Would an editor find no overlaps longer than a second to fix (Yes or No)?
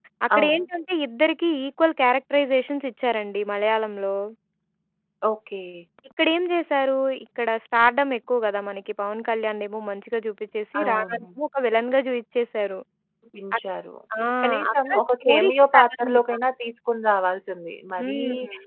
No